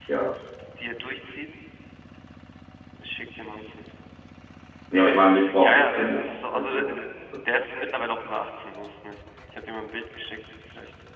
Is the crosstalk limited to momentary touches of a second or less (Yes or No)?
No